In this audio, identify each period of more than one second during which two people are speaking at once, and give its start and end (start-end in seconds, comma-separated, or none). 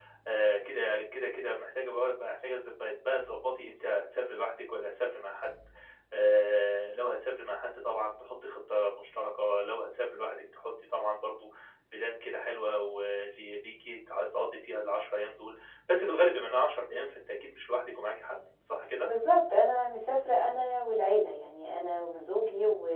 none